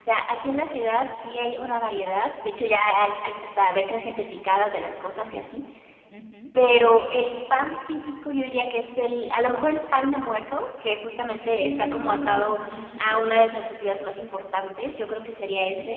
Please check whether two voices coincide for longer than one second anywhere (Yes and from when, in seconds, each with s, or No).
Yes, from 11.3 s